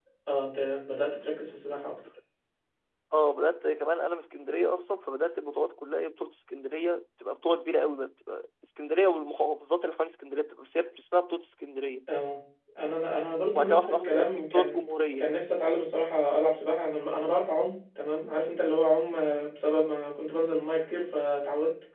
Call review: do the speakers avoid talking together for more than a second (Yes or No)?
No